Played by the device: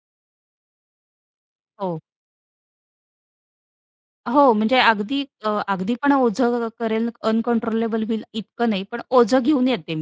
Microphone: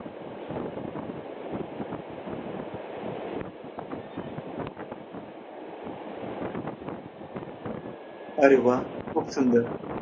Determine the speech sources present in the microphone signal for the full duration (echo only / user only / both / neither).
user only